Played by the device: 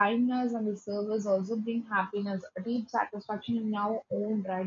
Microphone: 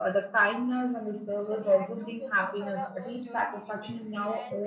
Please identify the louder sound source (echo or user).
echo